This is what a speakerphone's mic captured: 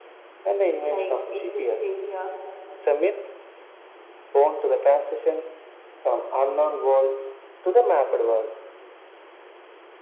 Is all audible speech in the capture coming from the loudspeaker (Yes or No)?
No